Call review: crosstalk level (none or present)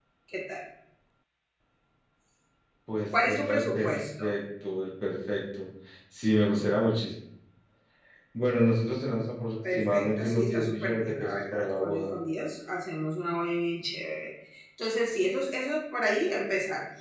present